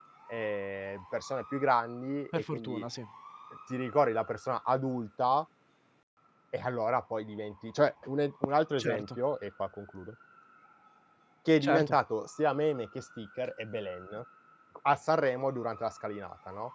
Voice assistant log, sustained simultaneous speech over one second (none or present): none